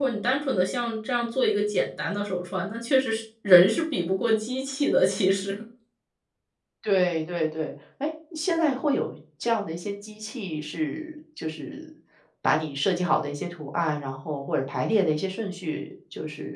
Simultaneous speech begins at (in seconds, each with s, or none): none